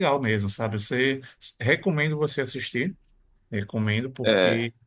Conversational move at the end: listening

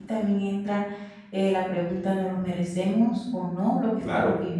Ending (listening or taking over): taking over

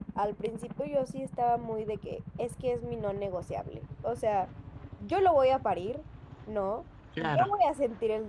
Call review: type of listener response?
listening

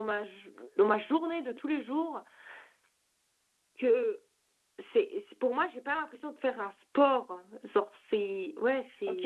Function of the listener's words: taking over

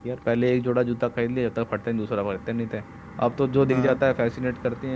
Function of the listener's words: listening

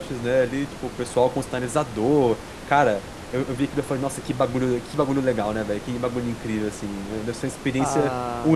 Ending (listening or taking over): taking over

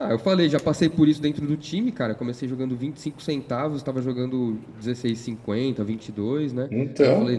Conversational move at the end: listening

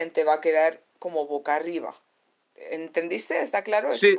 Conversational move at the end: taking over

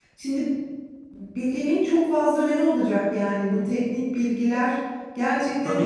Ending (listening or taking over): taking over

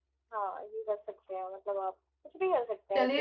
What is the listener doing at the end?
taking over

